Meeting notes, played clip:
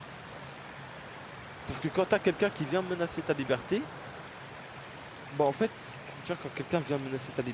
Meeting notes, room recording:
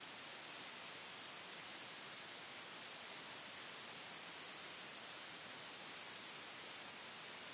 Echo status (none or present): none